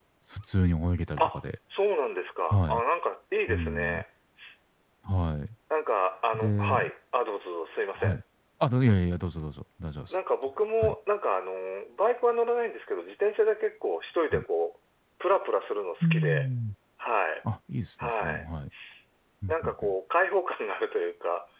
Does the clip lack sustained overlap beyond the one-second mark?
Yes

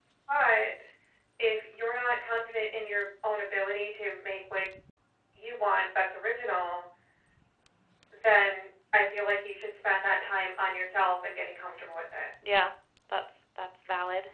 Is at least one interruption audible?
No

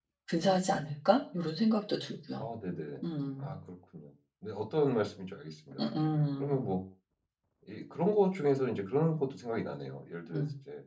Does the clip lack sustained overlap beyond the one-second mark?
Yes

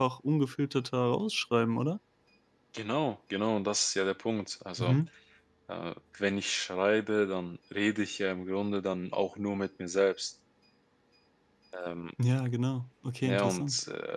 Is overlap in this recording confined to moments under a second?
Yes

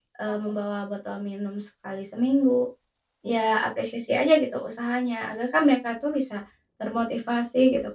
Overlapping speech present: No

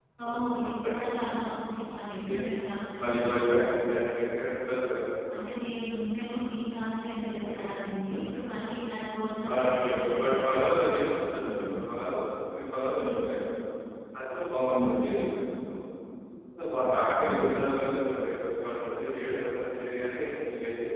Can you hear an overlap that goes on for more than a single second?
Yes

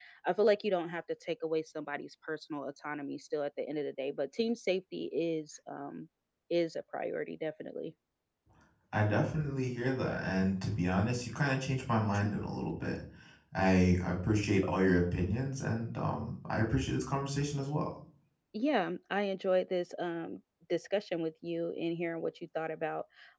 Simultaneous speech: No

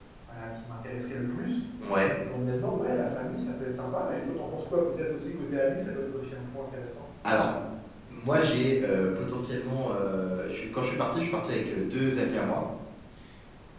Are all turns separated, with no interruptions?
Yes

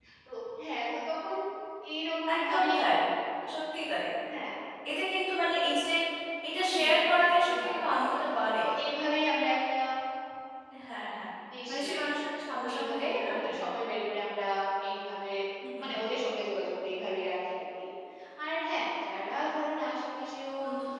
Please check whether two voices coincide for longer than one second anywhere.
Yes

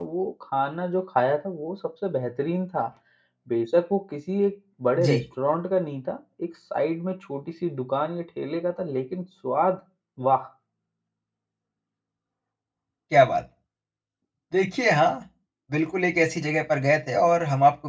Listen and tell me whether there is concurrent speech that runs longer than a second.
No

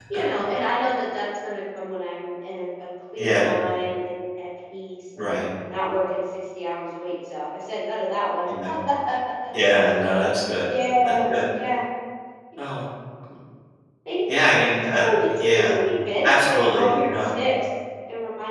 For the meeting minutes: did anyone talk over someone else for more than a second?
Yes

